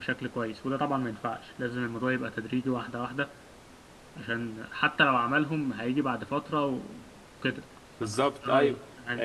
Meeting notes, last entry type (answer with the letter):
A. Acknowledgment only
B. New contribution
B